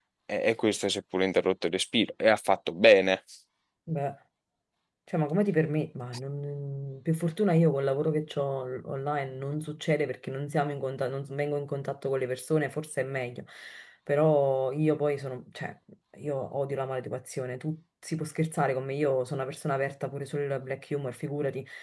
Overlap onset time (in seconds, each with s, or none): none